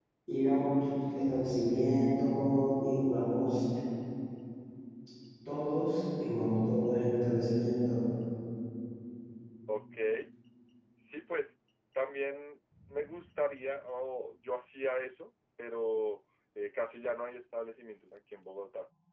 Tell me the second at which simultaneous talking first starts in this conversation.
none

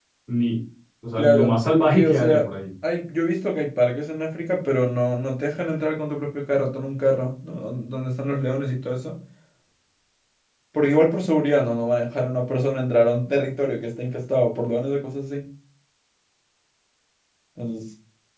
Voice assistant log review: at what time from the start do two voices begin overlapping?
1.2 s

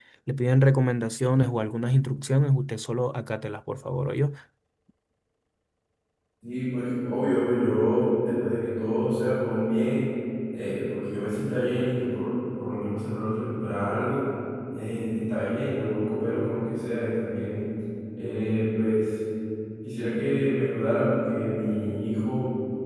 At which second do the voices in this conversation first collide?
none

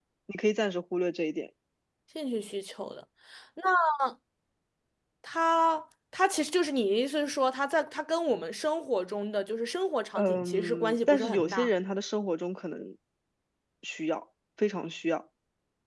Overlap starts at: 10.2 s

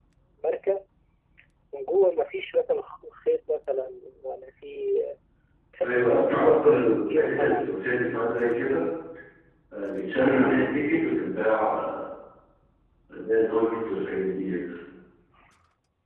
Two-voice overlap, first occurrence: 5.8 s

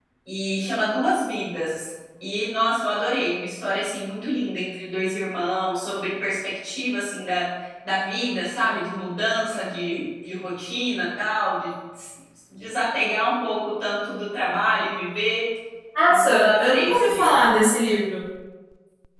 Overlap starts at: 16.1 s

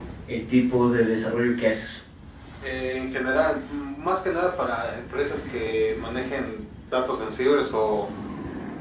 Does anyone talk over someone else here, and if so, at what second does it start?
none

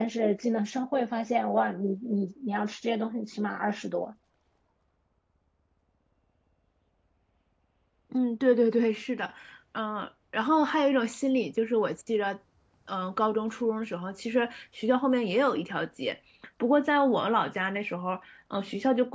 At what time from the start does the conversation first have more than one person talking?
none

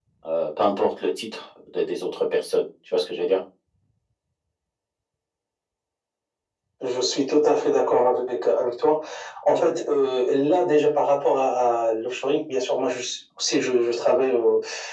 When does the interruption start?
none

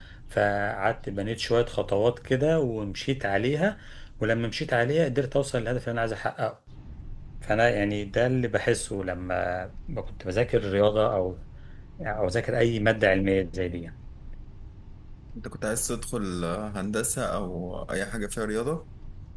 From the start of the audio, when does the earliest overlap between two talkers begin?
none

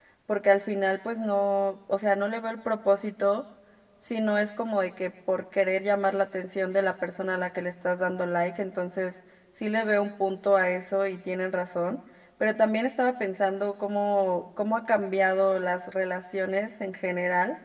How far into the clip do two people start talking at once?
none

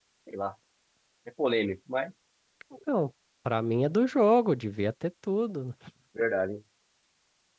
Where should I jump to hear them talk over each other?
none

